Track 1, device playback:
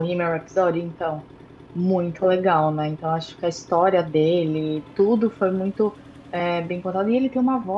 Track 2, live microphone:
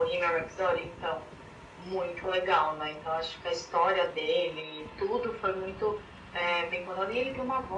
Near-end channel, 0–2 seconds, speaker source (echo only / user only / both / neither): echo only